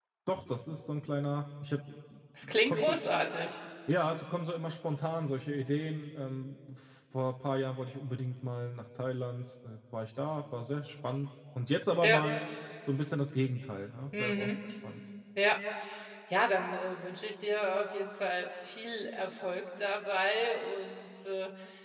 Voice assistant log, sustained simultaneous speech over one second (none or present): none